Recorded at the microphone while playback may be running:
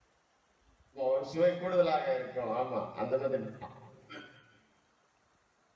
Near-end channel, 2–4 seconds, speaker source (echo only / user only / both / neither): user only